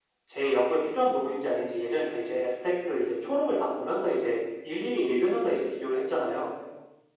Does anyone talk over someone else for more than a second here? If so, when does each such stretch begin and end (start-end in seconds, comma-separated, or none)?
none